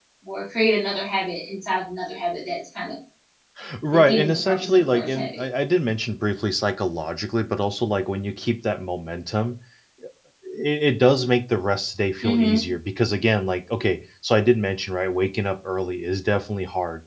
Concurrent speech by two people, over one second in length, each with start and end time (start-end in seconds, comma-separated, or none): 3.9-5.4